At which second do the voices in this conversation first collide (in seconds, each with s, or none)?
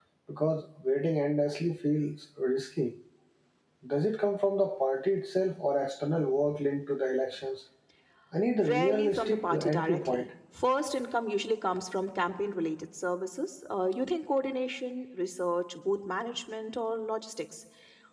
8.6 s